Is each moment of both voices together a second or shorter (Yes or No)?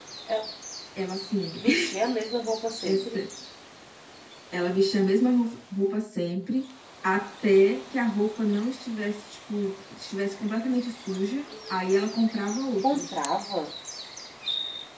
Yes